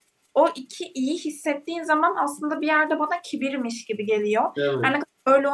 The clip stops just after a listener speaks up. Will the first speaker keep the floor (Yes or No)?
Yes